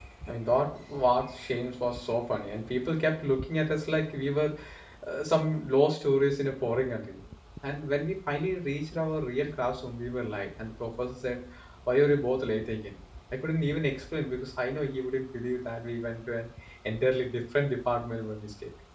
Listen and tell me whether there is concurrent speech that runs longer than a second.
No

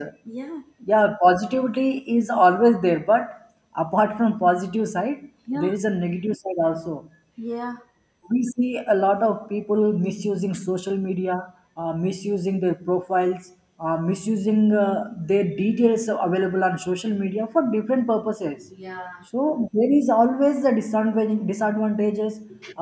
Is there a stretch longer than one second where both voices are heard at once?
No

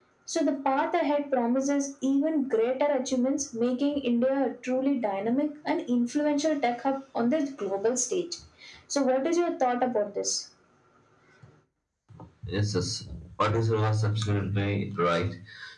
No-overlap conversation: Yes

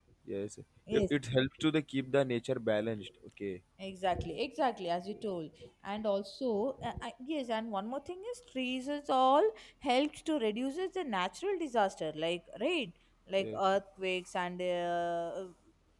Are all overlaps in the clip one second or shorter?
Yes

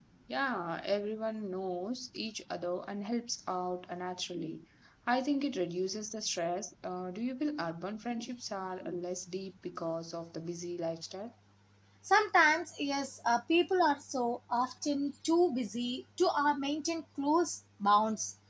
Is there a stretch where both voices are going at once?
No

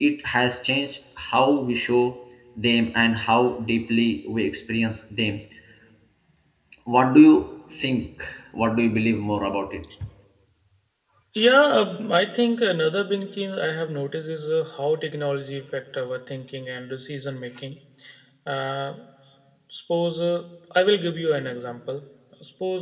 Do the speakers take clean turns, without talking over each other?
Yes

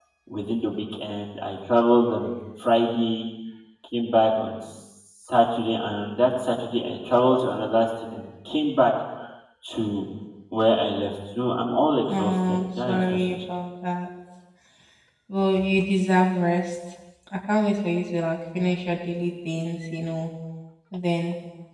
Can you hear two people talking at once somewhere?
Yes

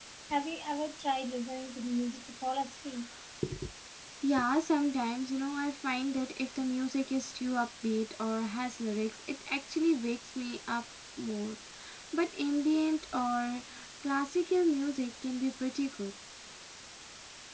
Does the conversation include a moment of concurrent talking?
No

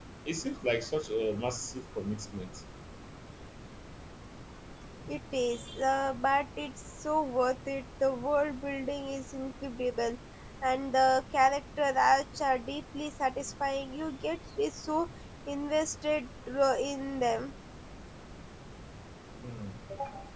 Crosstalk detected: No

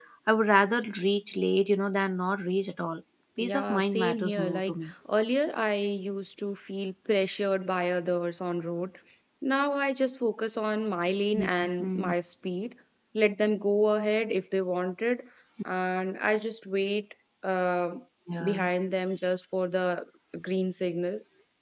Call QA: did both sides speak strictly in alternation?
No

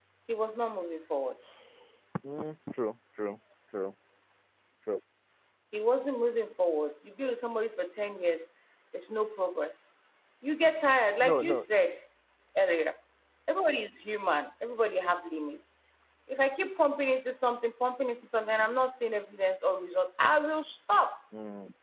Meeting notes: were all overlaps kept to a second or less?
Yes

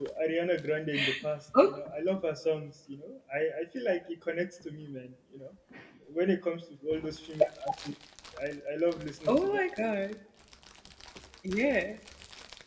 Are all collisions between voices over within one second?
Yes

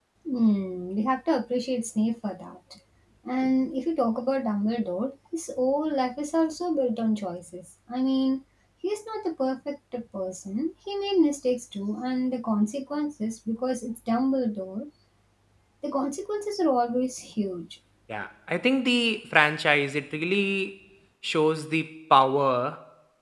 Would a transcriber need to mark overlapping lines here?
No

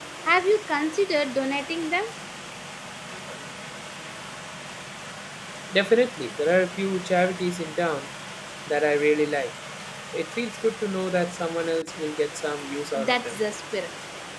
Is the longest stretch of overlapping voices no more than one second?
Yes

